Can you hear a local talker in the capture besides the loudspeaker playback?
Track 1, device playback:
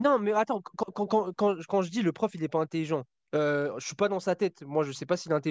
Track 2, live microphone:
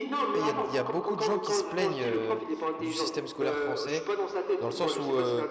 Yes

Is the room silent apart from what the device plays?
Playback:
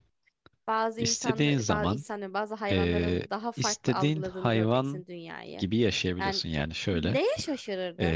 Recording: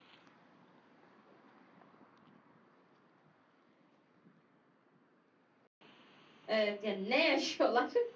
No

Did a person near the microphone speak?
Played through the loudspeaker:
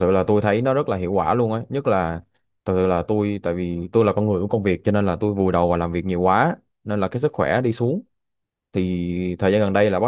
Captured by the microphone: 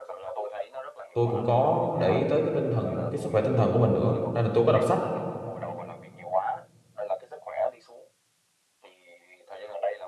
Yes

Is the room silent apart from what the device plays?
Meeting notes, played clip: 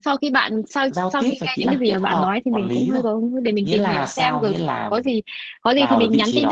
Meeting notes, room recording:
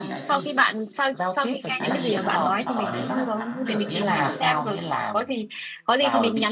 No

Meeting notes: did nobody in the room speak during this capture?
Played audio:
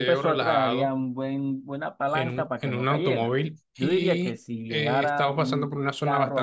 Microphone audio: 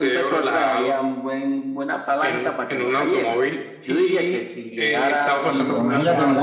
No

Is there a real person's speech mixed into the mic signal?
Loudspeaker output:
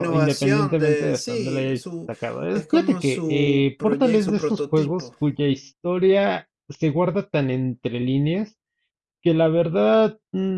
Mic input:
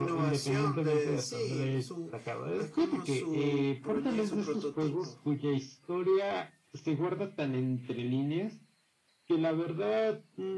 No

